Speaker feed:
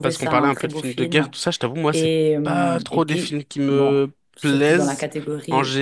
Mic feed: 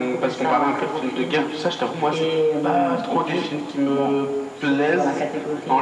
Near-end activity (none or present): none